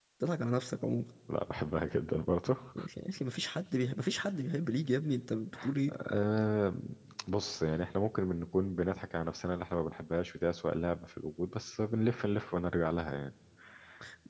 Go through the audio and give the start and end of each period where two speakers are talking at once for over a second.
none

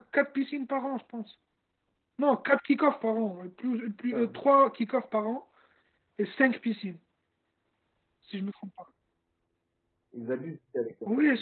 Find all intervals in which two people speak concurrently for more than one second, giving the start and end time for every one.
none

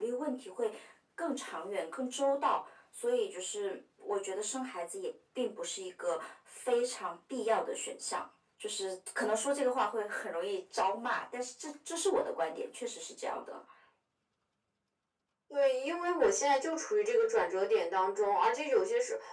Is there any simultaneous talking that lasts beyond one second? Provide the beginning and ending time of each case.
none

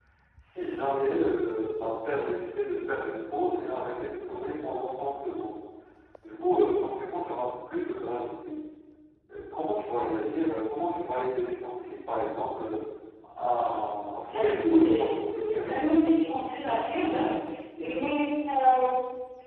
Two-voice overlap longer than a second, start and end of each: 14.3-16.1

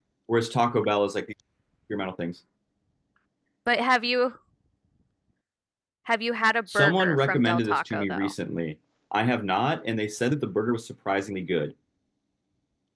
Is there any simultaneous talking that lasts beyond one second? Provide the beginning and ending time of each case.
6.7-8.3

